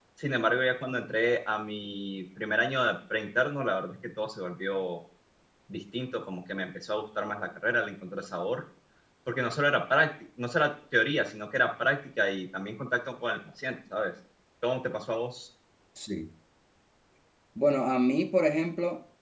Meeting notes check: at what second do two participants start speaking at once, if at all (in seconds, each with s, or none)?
none